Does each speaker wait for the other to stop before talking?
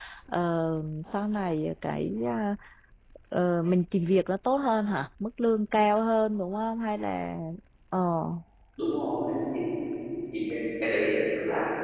Yes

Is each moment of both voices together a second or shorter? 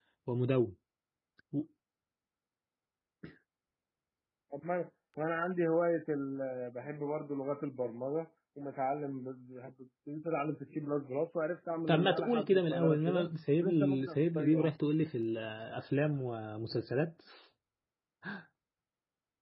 No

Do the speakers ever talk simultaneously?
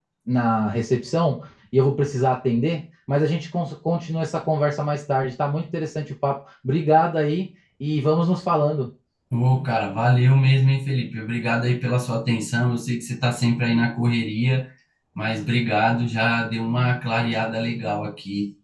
No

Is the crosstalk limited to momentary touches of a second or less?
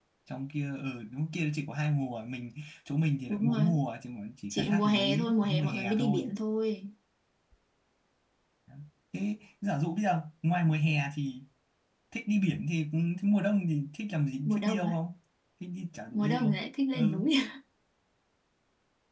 No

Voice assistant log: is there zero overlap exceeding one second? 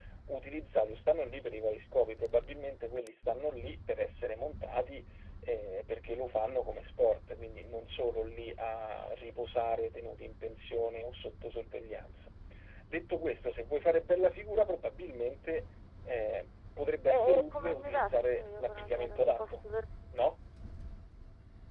No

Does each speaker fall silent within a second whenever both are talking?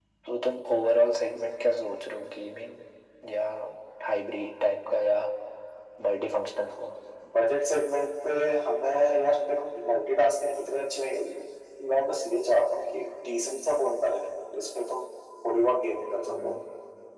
Yes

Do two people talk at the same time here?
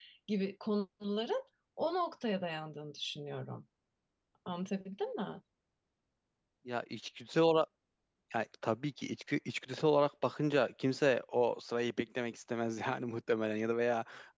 No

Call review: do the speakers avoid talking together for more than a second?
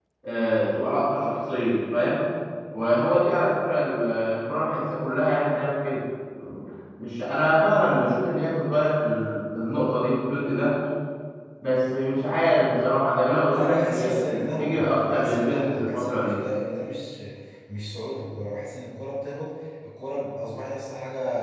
No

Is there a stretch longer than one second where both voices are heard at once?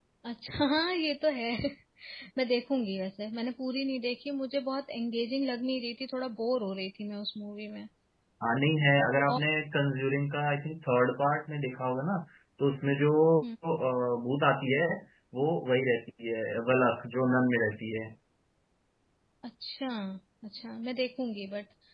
No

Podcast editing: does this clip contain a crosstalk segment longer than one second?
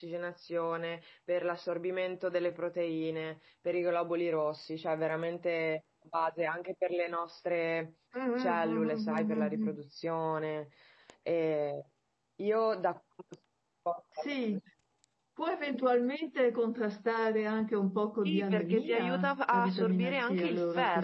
Yes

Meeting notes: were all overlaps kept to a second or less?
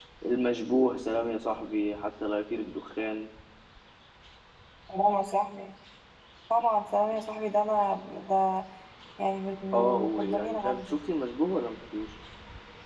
No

